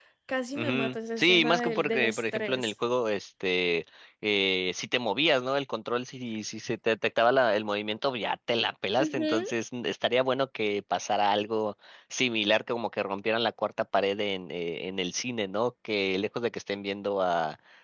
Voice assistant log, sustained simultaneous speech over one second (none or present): present